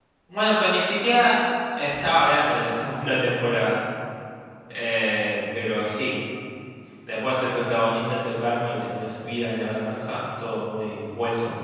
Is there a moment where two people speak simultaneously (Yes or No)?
No